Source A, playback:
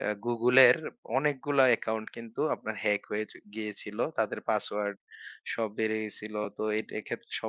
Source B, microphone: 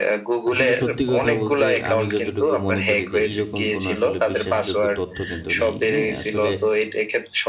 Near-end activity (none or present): present